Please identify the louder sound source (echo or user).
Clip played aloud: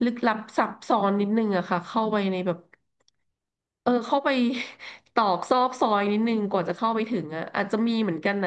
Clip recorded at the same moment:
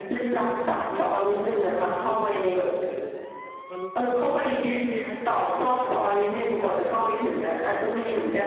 echo